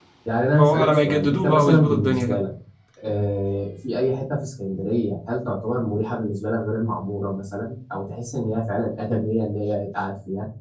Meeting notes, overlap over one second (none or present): present